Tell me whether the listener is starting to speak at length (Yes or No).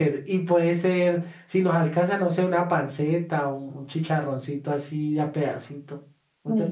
Yes